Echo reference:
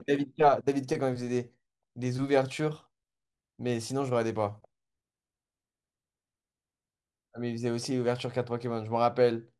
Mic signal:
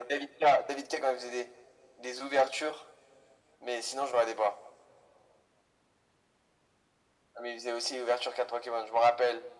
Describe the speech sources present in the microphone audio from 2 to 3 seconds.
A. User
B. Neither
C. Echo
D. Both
C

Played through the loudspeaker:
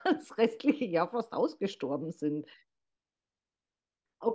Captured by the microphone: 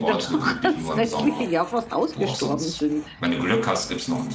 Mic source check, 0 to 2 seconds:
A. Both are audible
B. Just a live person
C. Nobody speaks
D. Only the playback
A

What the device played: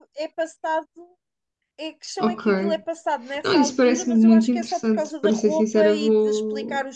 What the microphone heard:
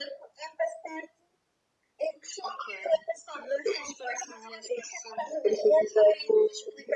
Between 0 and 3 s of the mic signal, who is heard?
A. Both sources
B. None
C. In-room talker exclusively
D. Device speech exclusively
D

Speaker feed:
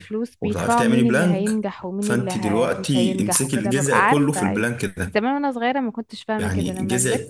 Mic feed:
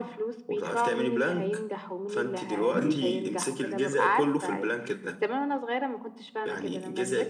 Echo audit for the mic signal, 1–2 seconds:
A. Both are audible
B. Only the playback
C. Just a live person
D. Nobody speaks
B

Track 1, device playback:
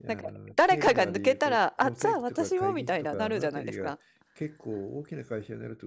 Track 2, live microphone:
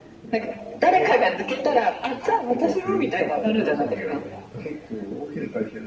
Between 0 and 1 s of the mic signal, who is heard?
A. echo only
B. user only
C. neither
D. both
A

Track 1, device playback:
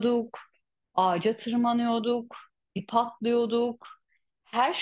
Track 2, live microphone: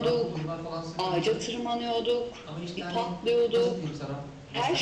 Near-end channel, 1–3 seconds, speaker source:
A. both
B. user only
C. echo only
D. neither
A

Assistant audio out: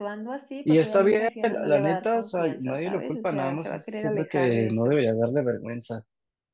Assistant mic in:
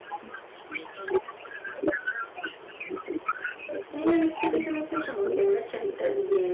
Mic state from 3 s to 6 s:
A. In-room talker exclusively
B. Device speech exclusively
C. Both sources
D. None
C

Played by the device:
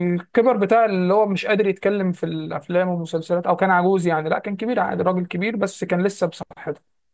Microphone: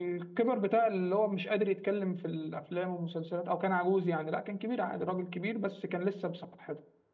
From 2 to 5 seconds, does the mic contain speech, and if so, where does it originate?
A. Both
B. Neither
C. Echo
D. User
C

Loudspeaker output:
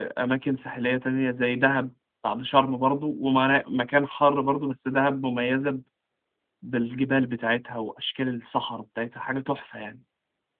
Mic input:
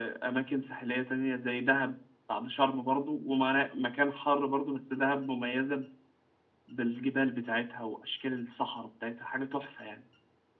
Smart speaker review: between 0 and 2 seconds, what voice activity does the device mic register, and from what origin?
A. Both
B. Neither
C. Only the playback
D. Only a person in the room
C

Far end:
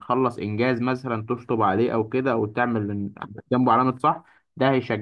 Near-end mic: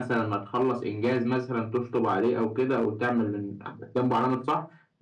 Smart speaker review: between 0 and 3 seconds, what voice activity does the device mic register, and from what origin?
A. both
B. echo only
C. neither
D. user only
B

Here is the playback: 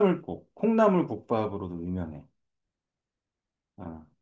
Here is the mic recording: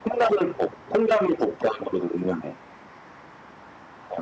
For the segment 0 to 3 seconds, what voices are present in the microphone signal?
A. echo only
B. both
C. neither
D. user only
A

